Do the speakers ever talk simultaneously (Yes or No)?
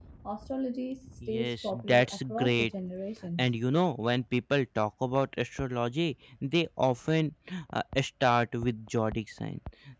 Yes